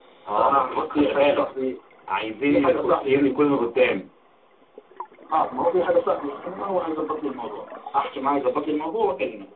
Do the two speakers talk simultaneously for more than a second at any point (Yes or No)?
Yes